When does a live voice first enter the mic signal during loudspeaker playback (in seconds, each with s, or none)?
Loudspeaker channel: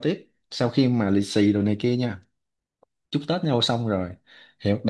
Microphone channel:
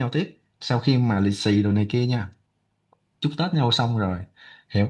none